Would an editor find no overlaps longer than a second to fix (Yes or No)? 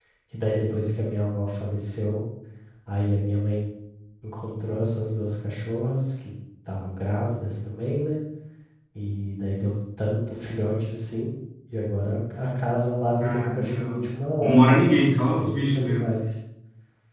No